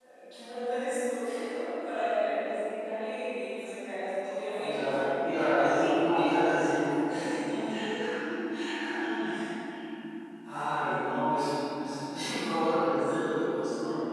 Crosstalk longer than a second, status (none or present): present